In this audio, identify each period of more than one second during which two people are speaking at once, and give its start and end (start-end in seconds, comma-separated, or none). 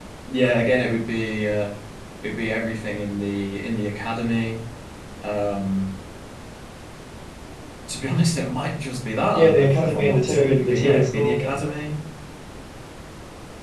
9.3-11.6